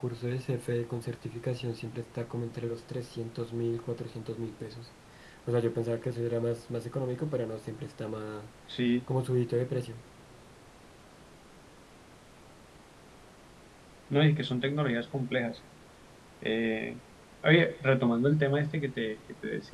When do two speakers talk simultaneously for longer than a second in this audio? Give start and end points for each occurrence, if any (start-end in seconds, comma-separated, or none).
none